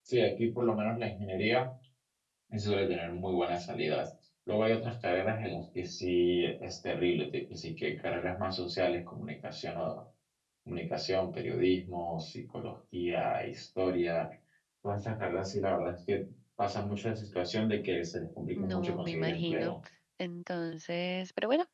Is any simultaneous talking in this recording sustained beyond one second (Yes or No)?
Yes